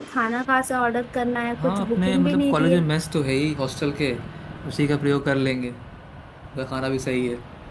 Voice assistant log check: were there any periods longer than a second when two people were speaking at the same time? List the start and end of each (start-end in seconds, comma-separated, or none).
1.6-2.8